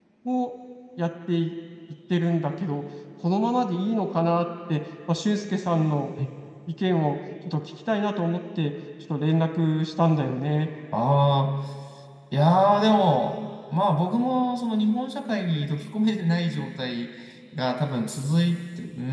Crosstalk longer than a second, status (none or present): none